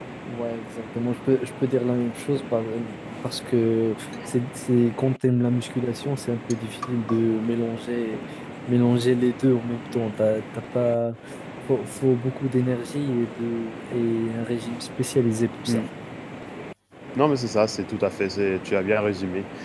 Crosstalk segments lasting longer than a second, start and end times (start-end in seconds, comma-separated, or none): none